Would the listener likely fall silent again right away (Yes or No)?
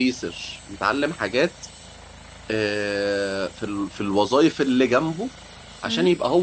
Yes